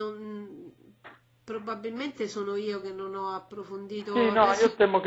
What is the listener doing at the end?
taking over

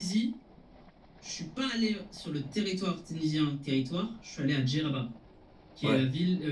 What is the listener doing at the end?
listening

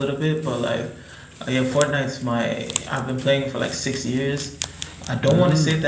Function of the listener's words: listening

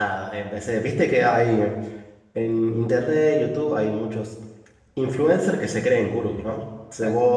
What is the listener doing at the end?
listening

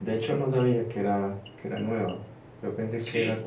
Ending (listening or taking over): listening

